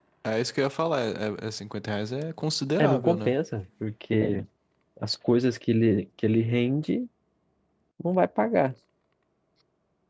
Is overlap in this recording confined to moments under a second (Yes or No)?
Yes